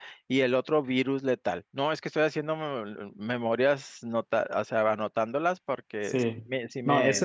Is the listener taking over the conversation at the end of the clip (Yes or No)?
Yes